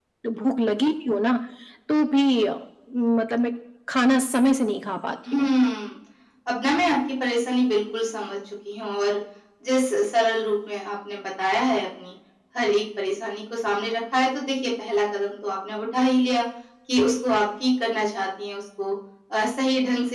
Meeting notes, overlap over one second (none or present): none